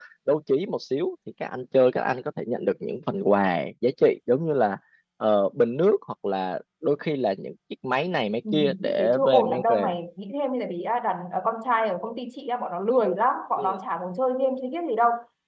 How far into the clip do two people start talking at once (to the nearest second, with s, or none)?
8 s